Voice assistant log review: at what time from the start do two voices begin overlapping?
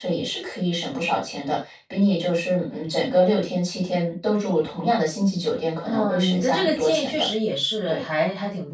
6 s

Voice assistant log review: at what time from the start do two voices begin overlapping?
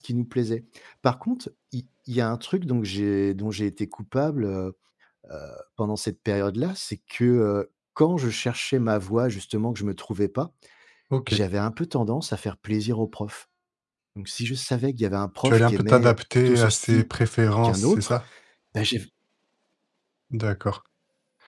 15 s

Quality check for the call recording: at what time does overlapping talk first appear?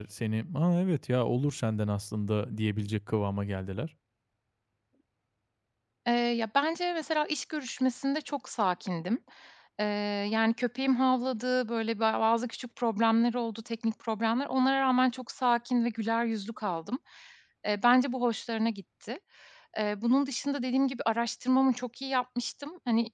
none

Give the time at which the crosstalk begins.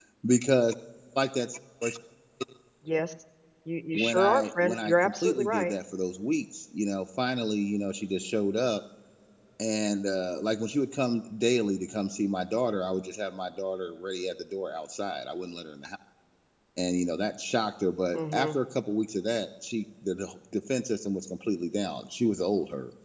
4 s

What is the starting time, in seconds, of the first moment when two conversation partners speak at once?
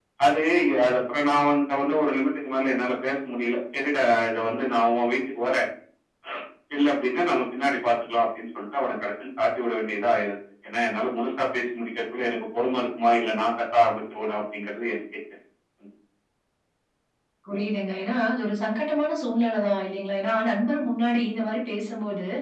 none

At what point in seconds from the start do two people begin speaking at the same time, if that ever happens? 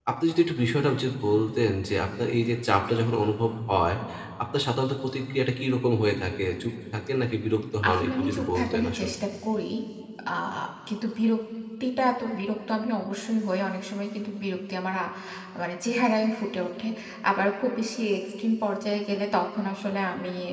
8 s

